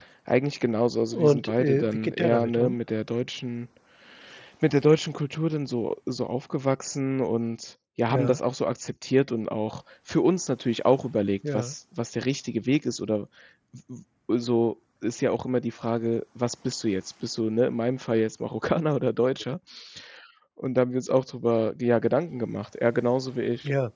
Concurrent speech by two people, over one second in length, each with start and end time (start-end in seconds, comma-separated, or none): 1.1-2.8